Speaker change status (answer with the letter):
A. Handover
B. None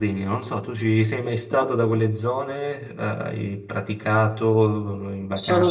A